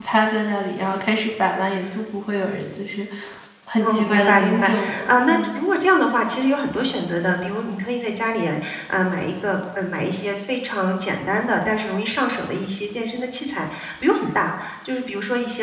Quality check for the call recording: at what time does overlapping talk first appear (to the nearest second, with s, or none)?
4 s